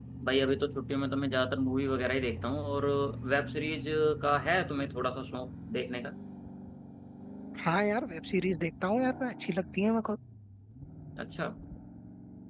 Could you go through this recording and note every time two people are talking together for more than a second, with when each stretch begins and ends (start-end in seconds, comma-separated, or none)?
none